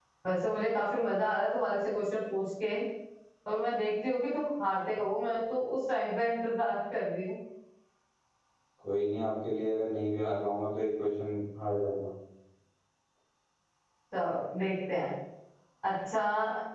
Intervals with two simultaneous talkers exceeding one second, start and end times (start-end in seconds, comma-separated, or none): none